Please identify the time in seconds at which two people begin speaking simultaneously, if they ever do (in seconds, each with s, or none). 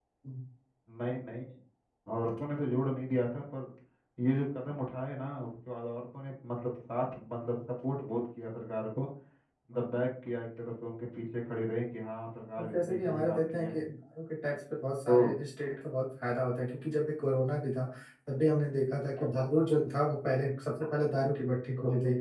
12.6 s